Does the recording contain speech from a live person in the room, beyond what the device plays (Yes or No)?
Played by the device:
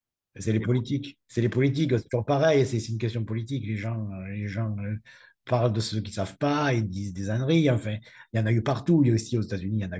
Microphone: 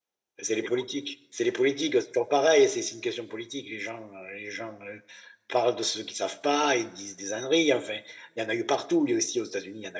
No